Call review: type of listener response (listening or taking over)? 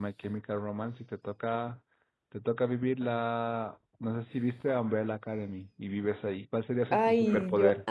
taking over